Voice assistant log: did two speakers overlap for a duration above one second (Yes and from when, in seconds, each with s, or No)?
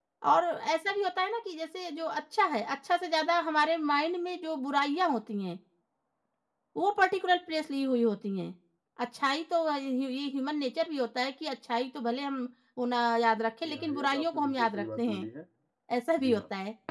Yes, from 13.6 s